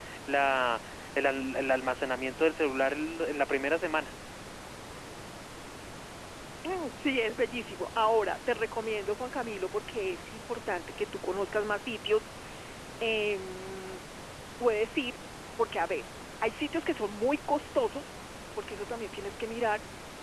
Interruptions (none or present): none